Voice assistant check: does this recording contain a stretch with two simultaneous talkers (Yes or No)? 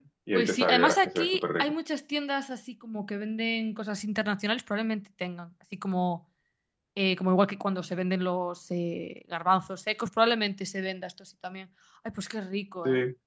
Yes